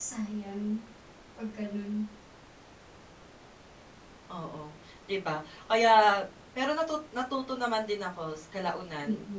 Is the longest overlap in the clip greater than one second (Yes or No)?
No